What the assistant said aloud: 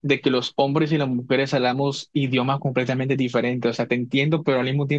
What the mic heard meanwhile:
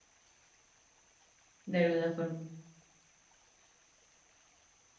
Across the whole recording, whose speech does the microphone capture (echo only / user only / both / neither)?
user only